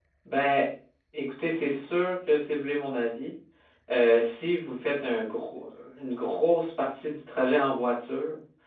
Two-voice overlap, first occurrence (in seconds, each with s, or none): none